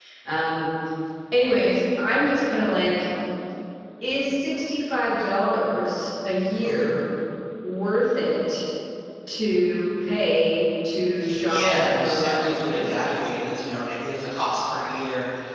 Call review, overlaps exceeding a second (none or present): present